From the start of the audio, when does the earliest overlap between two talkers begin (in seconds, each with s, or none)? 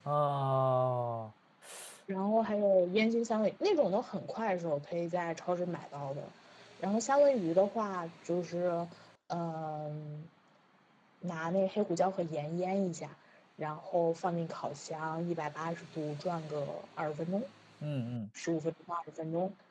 none